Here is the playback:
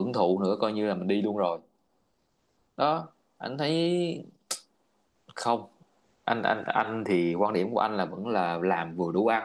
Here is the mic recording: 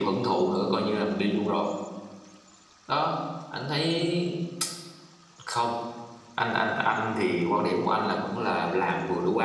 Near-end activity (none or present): none